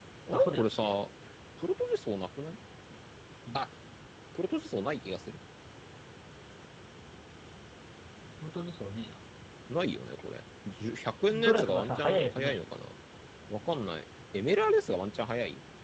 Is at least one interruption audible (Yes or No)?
Yes